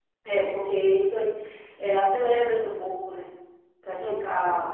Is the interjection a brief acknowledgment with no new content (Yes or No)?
Yes